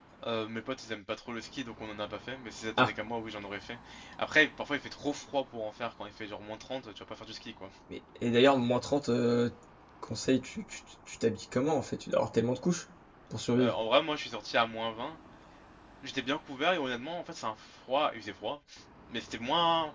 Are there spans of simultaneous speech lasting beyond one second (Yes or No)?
No